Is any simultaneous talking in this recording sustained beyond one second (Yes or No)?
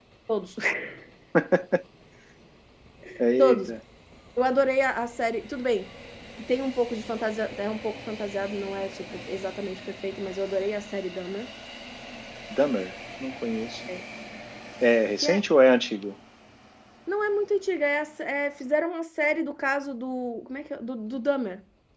No